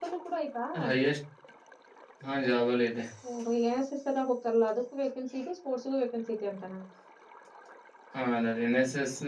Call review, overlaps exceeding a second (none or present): none